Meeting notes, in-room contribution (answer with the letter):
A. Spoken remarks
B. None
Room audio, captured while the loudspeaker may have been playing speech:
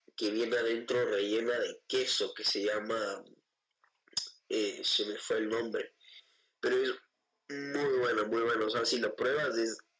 B